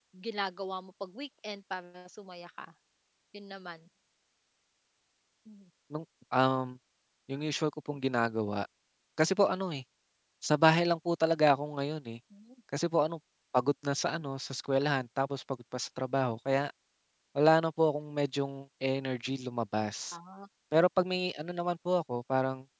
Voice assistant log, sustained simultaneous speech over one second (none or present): none